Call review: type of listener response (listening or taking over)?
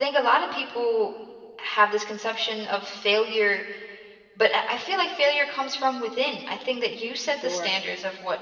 listening